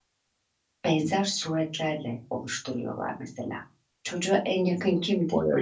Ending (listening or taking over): listening